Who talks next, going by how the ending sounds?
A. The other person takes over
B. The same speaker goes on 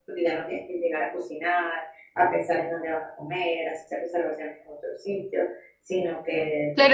A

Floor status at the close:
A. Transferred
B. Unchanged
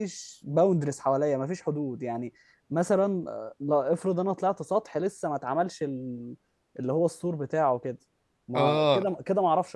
B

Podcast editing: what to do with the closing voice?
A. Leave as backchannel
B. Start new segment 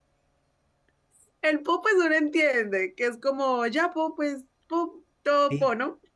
B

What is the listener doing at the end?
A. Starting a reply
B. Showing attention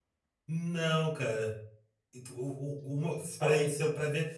B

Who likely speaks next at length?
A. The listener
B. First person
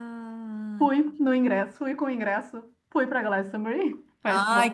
A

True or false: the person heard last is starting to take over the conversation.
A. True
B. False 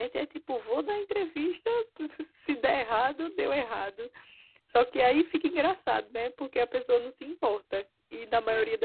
B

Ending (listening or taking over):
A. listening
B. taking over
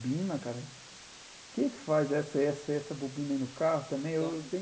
A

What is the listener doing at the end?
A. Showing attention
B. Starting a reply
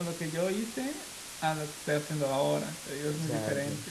B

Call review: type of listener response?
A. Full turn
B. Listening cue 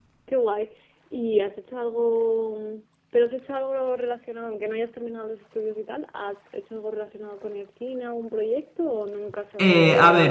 A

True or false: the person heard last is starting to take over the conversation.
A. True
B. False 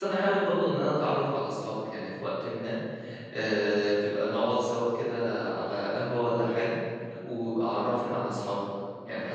A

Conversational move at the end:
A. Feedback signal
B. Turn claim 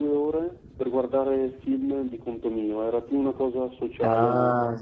B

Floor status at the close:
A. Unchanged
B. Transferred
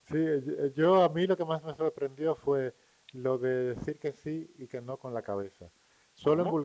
A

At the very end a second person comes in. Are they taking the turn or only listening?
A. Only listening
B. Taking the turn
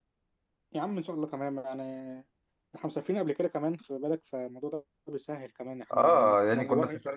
B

